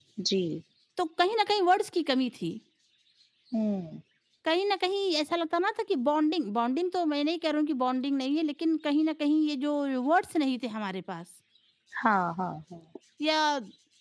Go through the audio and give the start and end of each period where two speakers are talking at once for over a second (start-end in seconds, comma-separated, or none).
none